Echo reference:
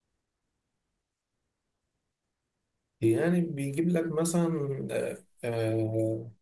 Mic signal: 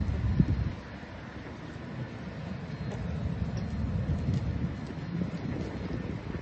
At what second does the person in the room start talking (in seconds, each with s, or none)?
none